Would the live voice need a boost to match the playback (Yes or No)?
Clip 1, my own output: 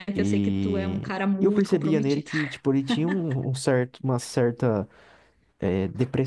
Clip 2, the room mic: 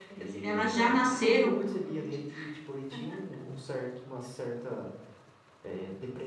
No